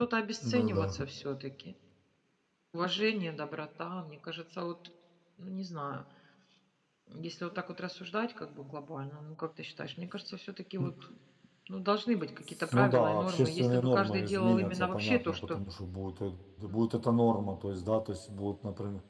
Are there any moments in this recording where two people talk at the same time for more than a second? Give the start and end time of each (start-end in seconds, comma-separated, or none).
12.7-15.6